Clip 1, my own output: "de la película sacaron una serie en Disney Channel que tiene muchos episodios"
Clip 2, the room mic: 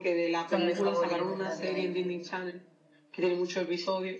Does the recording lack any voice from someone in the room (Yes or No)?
No